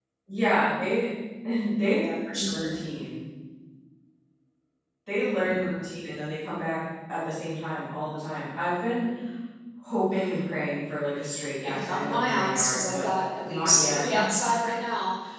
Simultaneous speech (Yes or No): Yes